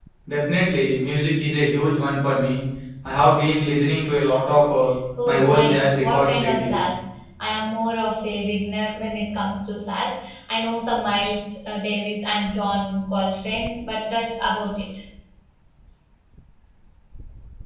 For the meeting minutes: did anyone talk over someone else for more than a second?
Yes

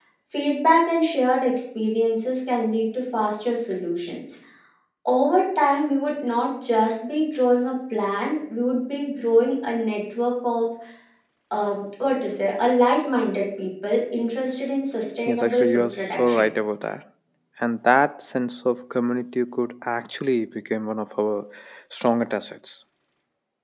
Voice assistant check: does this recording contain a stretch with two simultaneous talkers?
Yes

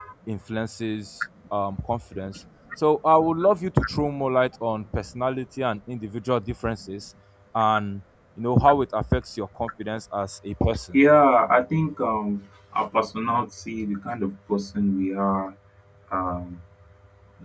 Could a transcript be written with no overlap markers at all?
Yes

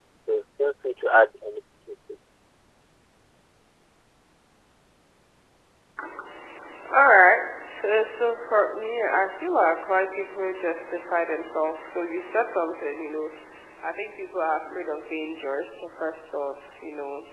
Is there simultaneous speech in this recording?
No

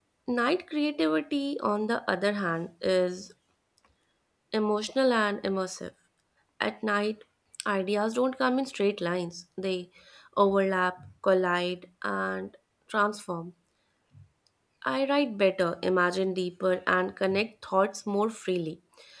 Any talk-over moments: No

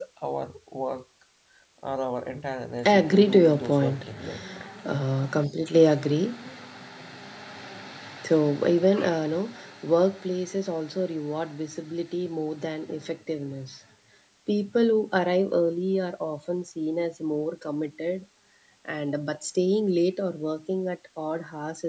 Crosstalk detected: Yes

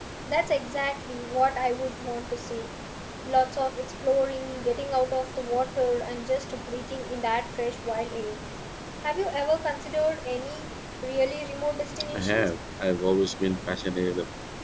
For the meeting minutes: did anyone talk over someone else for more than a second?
No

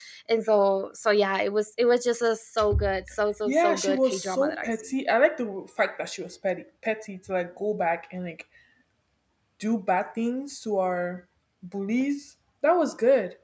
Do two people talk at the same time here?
Yes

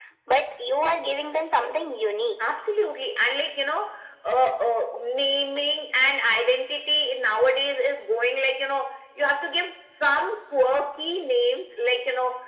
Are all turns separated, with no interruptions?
Yes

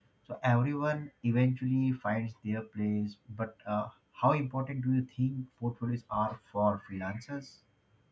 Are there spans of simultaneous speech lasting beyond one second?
No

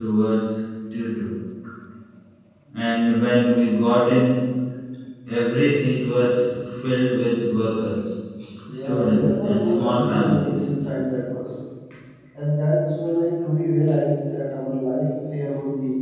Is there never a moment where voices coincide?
No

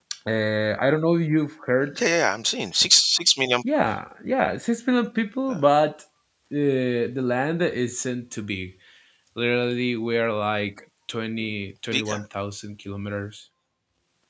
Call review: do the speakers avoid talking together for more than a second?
Yes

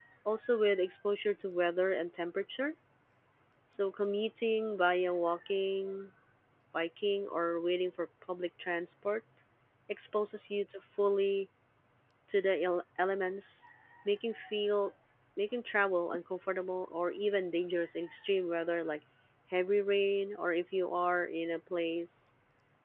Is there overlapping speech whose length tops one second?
No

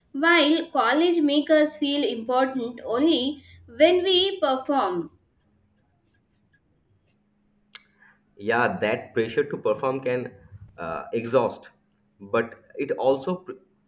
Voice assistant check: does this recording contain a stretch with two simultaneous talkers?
No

